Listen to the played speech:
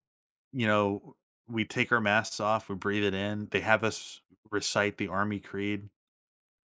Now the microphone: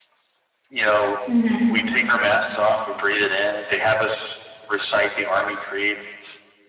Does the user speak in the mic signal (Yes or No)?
Yes